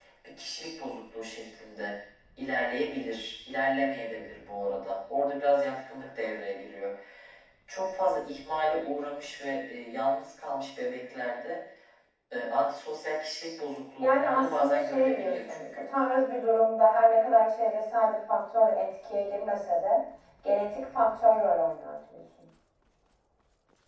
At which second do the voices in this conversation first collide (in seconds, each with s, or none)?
14.0 s